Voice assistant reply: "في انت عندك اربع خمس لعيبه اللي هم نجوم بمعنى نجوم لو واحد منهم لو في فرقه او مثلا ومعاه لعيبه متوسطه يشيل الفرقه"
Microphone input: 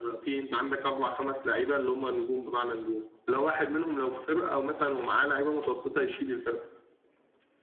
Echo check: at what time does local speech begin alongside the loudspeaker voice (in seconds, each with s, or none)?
none